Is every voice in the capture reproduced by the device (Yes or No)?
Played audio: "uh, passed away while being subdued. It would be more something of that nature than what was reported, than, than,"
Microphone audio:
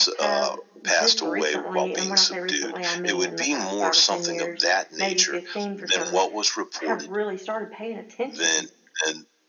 No